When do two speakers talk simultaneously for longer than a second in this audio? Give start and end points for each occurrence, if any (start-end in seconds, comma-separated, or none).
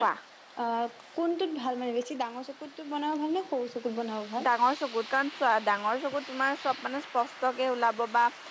none